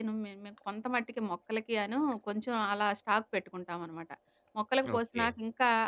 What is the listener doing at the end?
listening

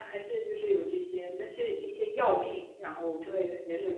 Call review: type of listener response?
taking over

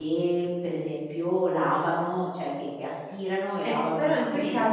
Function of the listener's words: taking over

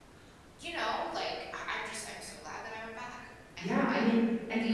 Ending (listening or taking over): taking over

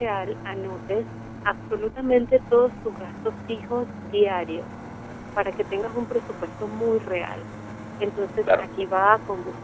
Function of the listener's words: listening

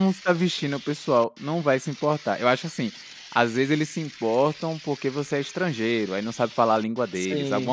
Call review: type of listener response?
listening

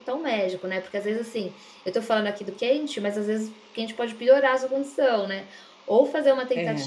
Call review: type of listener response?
listening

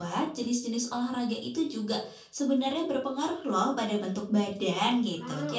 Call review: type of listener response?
listening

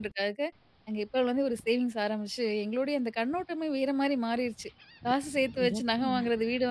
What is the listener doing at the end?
listening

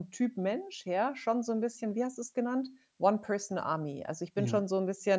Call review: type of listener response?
listening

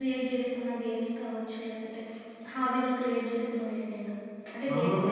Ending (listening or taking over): taking over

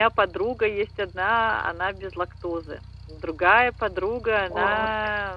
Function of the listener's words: listening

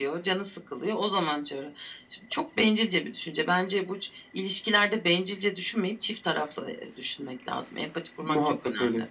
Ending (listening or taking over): taking over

